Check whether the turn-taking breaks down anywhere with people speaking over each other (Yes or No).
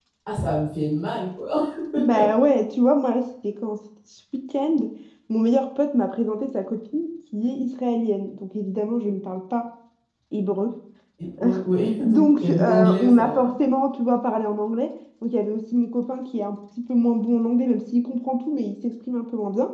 Yes